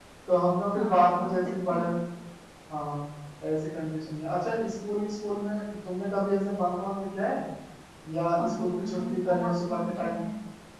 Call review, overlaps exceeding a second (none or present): present